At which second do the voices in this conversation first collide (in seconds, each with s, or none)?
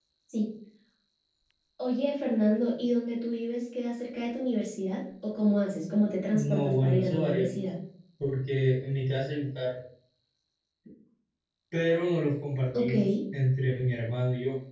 6.3 s